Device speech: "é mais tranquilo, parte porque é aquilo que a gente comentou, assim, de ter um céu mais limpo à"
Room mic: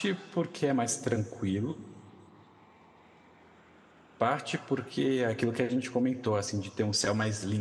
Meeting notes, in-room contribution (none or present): none